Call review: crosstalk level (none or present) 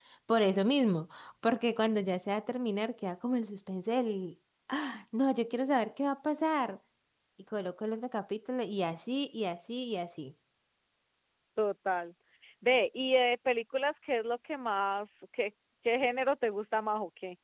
none